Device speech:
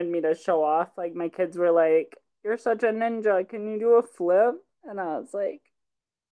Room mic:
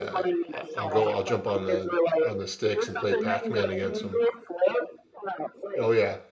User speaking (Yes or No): Yes